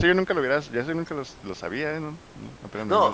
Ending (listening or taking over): taking over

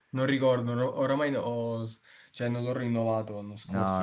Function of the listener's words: taking over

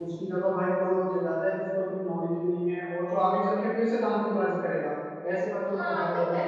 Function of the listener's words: taking over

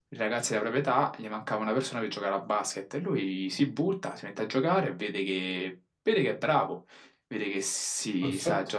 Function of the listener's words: listening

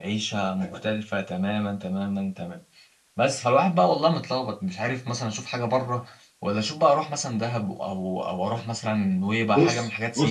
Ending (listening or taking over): taking over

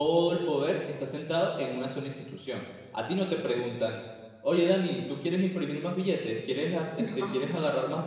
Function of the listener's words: listening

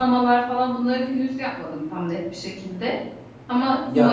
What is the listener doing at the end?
listening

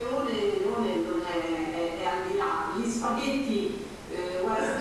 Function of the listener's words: listening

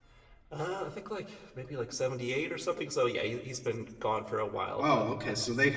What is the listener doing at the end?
taking over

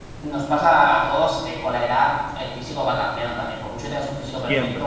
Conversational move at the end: listening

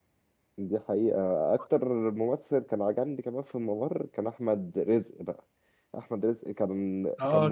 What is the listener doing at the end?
taking over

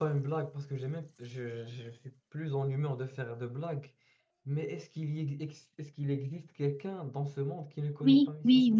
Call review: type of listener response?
taking over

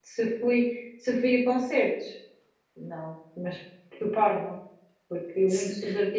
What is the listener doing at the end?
listening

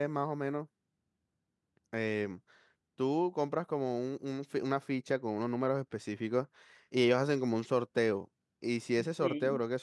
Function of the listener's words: listening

